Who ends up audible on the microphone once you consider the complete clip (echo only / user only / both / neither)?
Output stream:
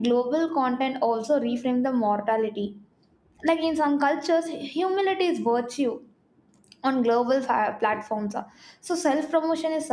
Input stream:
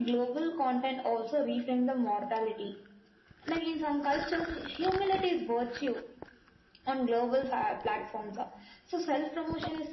echo only